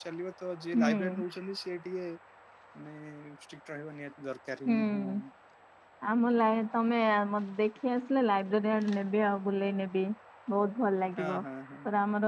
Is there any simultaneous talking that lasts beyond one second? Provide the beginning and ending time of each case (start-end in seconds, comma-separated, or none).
none